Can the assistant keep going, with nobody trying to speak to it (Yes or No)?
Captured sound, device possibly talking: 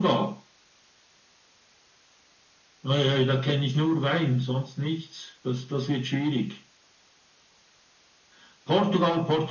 Yes